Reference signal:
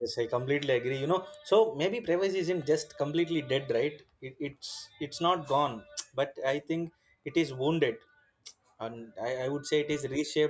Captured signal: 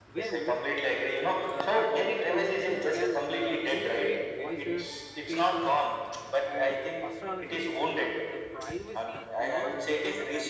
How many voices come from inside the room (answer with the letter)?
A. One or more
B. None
A